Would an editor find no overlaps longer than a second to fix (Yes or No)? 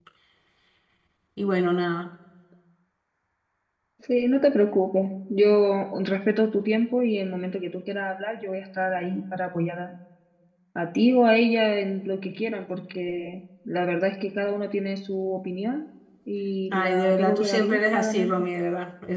No